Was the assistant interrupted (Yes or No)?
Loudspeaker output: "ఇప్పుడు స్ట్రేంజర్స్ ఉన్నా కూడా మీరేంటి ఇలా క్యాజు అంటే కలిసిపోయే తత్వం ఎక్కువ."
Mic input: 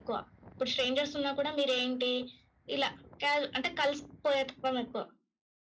No